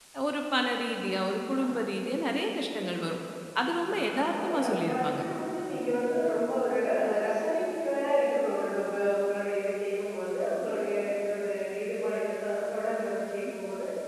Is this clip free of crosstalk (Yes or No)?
No